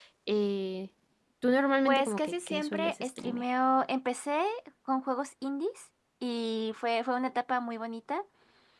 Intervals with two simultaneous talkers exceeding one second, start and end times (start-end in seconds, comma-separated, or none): 1.9-3.5